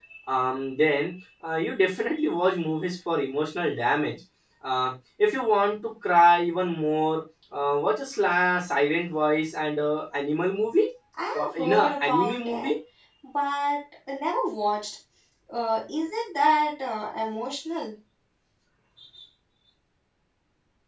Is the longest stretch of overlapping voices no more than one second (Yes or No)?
No